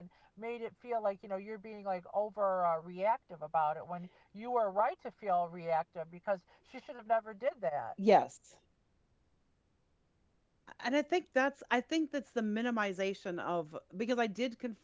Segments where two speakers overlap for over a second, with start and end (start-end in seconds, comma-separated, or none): none